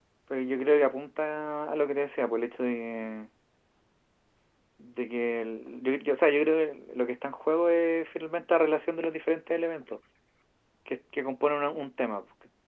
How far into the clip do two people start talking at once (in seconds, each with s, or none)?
none